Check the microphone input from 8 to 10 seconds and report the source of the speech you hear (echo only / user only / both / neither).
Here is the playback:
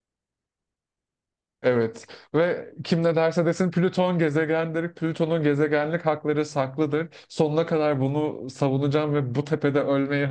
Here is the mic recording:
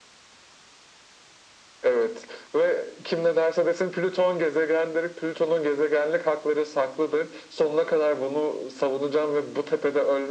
echo only